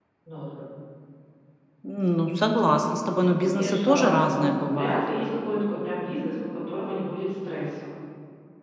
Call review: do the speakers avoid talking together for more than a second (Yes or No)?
No